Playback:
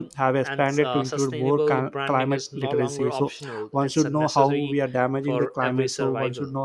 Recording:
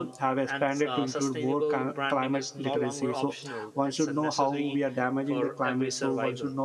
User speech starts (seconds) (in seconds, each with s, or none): none